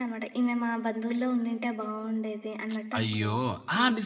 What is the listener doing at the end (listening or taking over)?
taking over